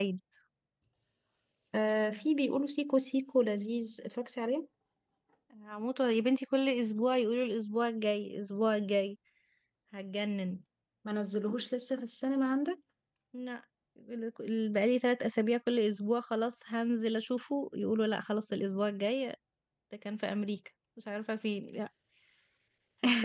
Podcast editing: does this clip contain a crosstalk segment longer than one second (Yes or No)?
No